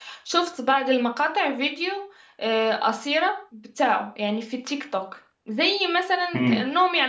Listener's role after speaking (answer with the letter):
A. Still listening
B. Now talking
A